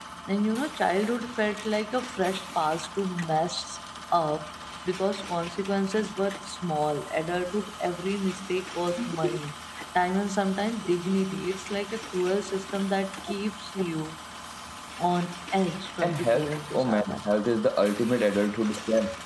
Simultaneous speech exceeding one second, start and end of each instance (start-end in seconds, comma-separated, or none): 16.0-17.3